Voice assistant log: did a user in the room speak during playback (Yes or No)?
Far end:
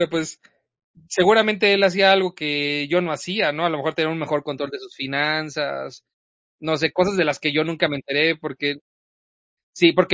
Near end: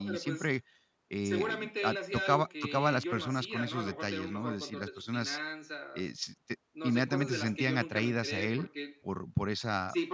Yes